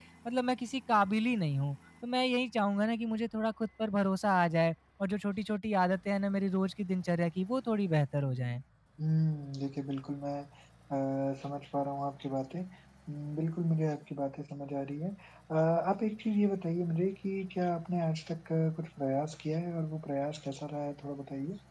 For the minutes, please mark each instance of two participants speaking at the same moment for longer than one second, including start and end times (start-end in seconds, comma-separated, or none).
none